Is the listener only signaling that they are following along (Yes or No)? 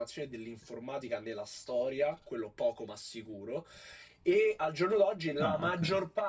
Yes